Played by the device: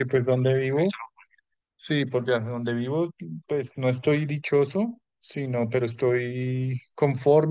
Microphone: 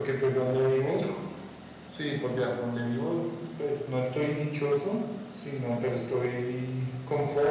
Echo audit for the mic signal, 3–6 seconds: echo only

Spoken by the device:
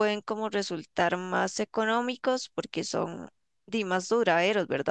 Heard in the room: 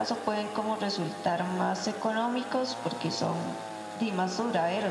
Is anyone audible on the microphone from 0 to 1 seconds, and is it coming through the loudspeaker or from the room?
echo only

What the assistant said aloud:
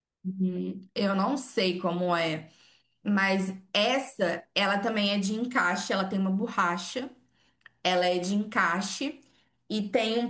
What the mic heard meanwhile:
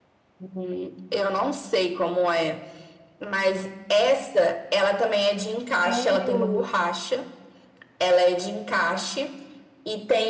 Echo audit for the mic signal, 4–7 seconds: both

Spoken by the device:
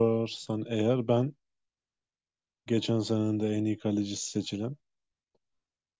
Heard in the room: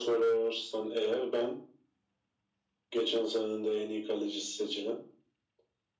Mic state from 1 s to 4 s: echo only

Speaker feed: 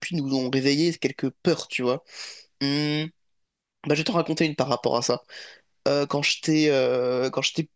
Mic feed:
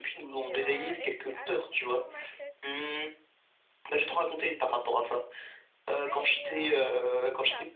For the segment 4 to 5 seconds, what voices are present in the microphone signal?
echo only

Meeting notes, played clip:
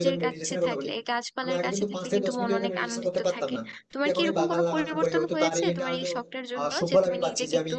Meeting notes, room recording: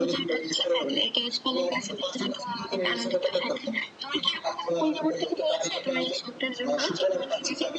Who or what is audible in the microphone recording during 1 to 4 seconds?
echo only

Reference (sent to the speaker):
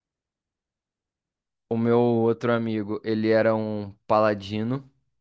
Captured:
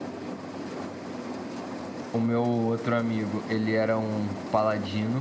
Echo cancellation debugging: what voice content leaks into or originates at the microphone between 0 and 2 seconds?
neither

